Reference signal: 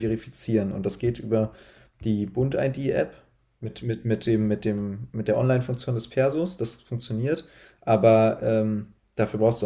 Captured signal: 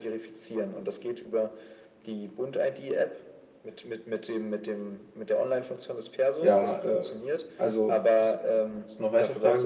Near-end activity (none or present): present